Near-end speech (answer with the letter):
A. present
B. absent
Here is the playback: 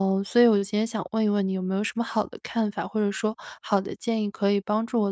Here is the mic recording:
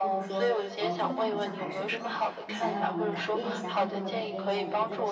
A